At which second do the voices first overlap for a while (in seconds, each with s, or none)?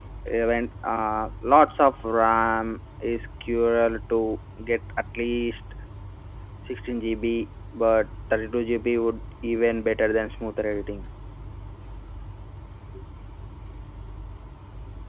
none